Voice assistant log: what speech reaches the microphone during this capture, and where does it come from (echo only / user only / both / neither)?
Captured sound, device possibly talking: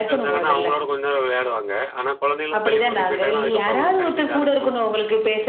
both